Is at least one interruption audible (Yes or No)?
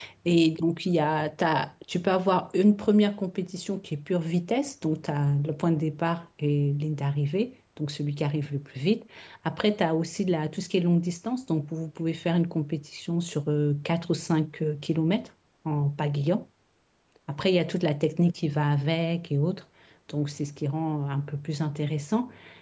No